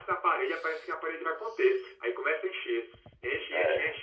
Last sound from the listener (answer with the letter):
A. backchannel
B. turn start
A